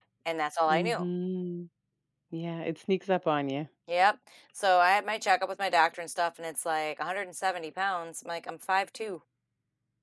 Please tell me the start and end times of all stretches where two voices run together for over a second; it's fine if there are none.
none

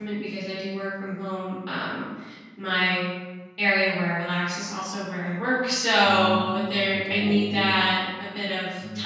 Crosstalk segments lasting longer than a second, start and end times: 6.1-7.8

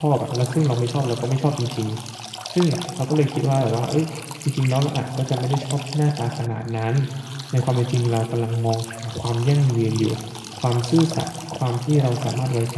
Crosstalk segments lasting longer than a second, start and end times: none

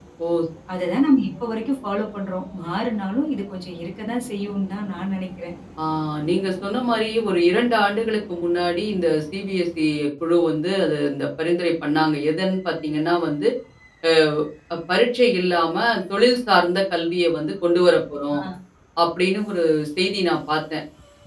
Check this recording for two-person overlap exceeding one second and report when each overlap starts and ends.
none

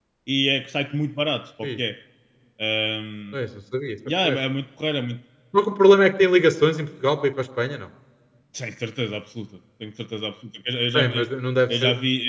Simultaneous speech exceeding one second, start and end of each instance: none

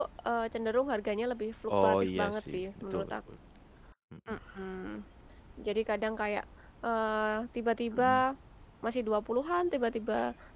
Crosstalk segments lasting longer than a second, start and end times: 1.8-3.1

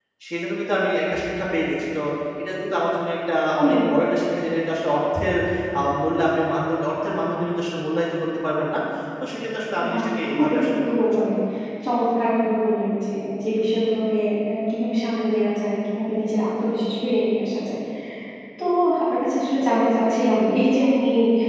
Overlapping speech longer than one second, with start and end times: 9.9-11.2

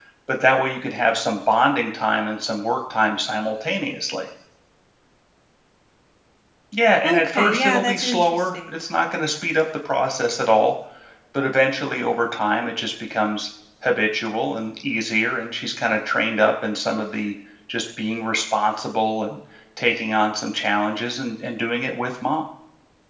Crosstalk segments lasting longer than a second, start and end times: 7.0-8.8

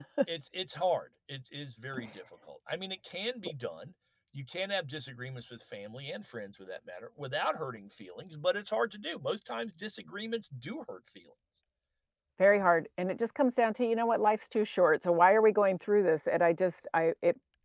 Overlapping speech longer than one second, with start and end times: none

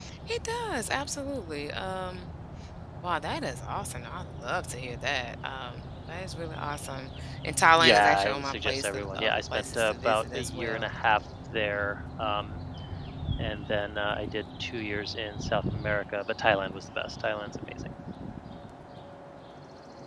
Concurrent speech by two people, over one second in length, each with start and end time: 7.8-10.9

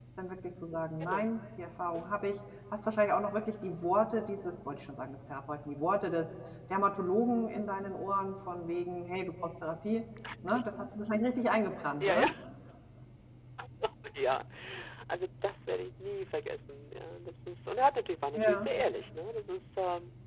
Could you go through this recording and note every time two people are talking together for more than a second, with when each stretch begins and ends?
none

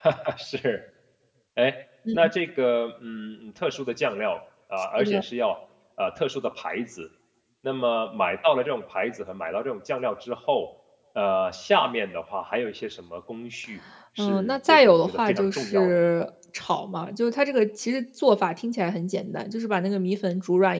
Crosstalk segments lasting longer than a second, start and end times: 14.2-16.0

